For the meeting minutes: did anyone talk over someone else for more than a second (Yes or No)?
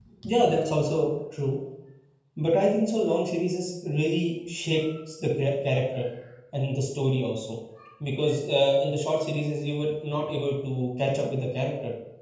No